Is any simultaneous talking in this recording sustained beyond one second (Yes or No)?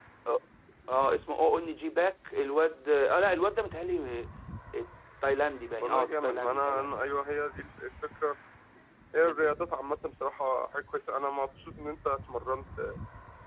Yes